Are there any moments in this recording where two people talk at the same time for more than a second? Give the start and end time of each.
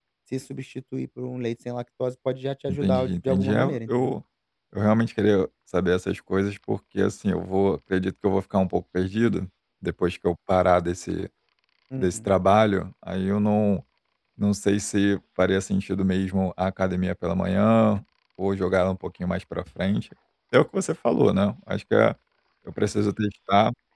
2.7-4.1

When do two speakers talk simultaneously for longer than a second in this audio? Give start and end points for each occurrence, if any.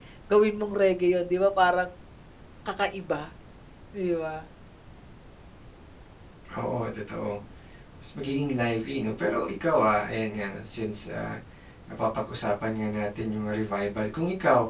none

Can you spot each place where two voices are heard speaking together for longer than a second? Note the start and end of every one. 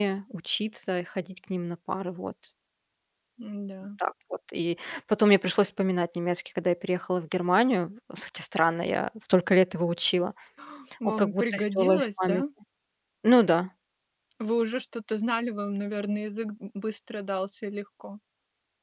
11.2-12.4

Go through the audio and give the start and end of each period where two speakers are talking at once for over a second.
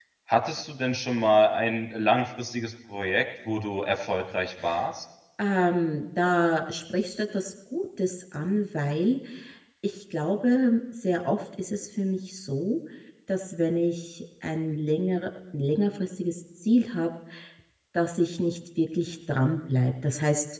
none

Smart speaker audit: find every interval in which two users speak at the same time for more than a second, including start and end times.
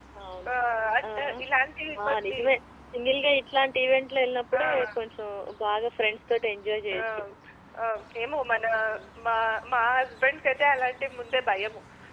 none

